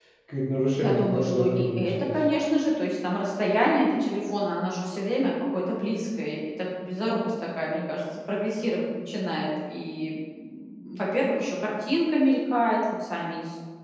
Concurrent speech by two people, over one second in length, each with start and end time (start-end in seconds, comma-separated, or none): 0.8-2.1